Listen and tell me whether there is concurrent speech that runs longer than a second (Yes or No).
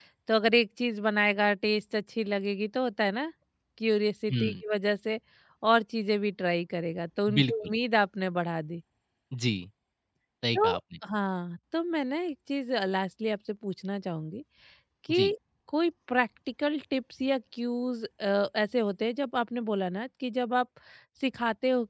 No